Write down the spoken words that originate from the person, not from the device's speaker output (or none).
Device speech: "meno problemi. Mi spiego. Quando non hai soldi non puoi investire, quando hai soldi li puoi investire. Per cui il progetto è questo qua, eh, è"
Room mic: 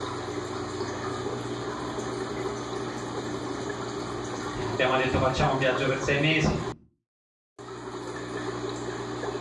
E abbiamo detto facciamo un viaggio per sei mesi